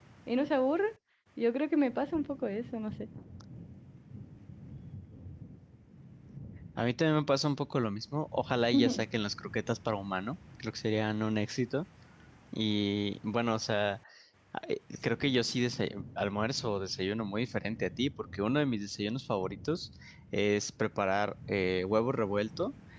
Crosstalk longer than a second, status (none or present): none